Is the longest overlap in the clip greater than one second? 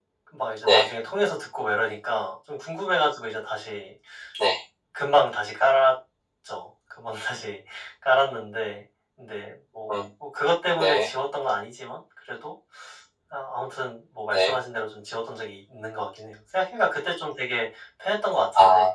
No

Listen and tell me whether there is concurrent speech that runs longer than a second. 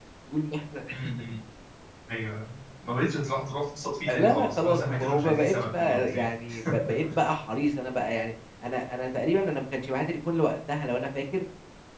Yes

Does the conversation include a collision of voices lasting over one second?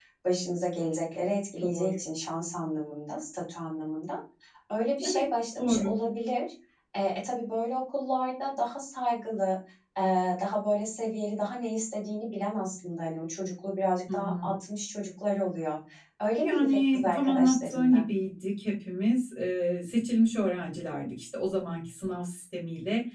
Yes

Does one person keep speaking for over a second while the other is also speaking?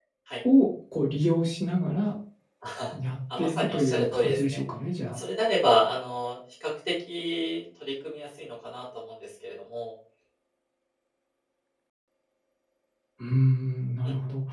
Yes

